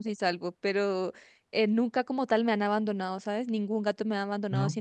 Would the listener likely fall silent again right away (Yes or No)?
Yes